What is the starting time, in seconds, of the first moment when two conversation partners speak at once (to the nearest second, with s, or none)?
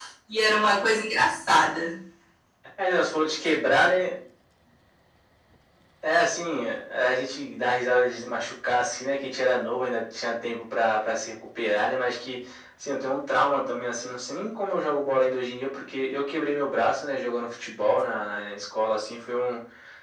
none